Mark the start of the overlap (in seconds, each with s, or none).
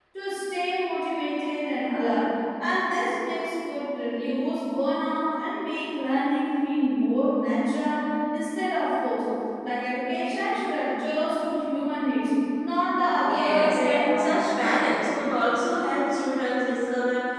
13.2 s